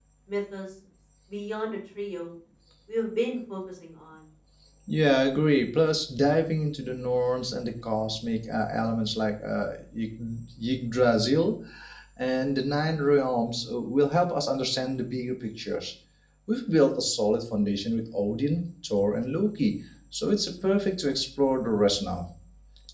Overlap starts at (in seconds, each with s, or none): none